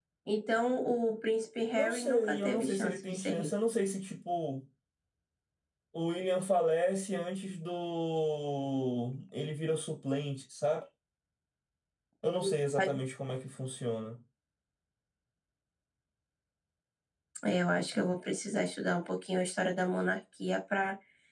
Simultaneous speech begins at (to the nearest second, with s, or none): 2 s